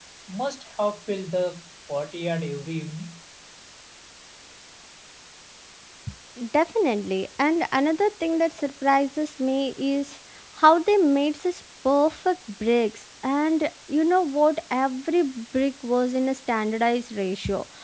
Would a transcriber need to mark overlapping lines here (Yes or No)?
No